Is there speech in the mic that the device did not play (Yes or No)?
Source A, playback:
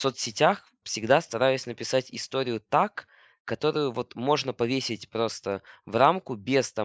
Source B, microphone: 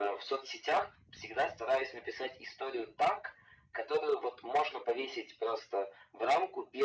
No